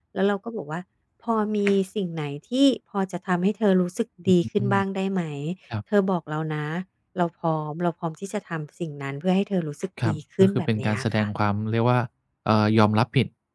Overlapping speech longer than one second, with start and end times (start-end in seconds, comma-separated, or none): 10.0-11.3